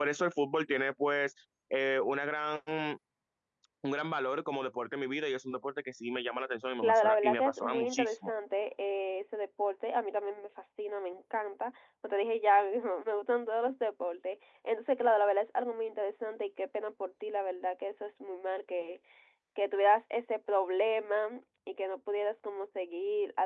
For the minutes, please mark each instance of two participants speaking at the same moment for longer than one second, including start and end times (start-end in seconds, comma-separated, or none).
6.8-8.3